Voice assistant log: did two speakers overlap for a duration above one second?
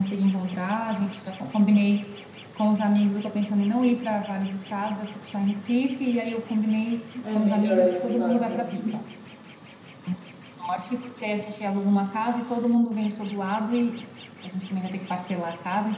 Yes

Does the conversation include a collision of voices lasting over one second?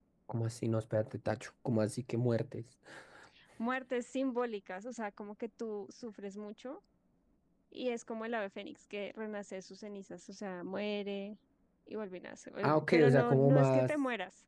Yes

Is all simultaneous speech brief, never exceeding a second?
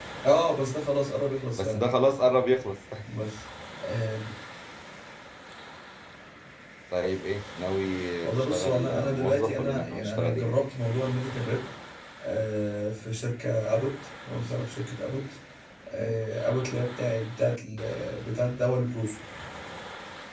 No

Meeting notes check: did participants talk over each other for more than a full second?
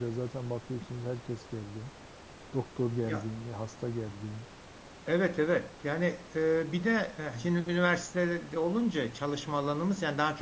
No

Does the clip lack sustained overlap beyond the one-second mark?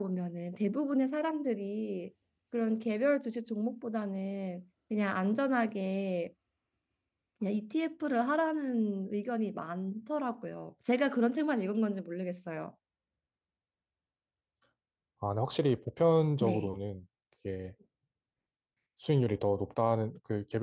Yes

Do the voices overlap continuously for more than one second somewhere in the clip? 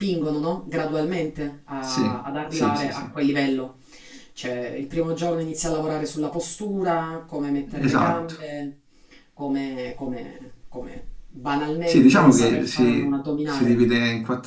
Yes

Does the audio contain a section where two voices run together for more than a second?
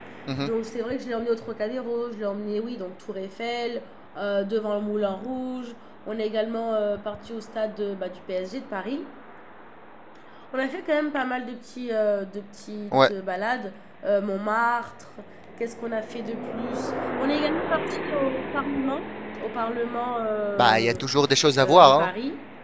No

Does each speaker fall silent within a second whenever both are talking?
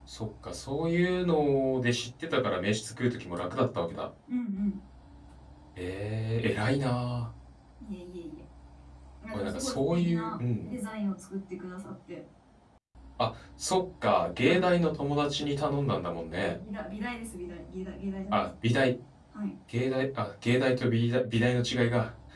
No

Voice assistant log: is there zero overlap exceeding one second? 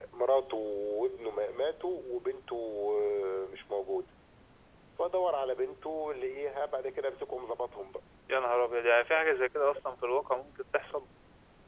Yes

